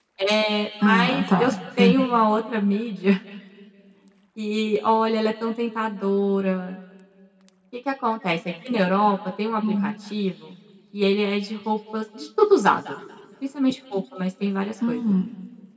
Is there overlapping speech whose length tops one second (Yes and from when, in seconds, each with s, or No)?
Yes, from 0.8 s